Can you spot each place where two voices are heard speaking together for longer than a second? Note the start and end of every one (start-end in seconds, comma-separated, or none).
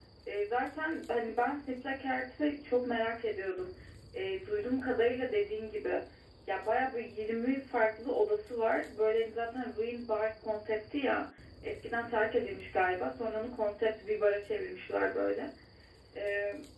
none